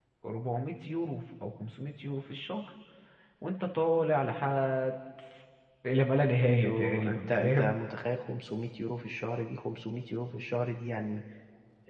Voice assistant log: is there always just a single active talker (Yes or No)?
No